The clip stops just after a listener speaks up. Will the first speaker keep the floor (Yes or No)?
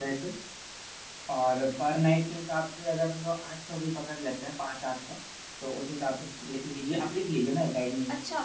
No